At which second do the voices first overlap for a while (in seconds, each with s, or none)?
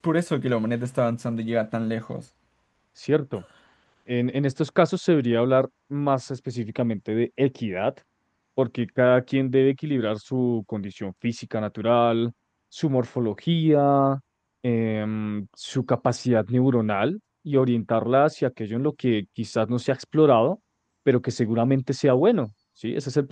none